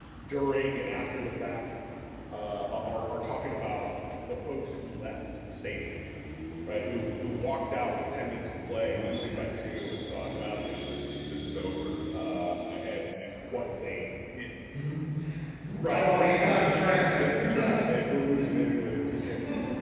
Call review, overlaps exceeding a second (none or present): present